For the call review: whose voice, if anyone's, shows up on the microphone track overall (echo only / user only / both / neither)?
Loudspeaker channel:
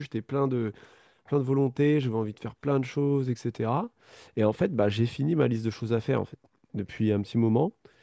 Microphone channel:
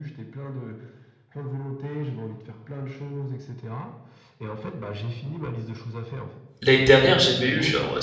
both